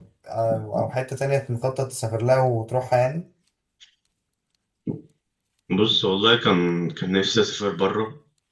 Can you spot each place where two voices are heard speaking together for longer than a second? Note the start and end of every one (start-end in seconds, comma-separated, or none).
none